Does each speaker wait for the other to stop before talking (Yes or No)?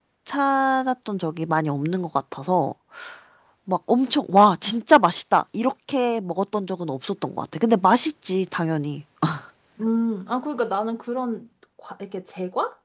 Yes